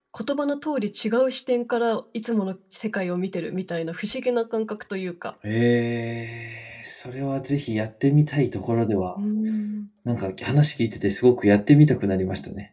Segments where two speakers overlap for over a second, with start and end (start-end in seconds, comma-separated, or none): none